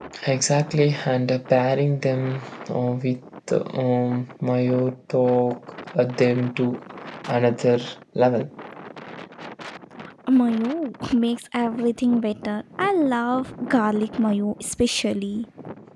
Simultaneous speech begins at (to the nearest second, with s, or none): none